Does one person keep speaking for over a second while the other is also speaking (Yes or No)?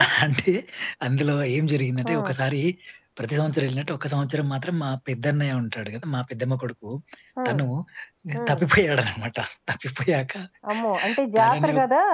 No